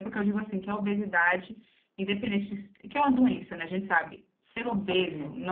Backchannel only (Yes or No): Yes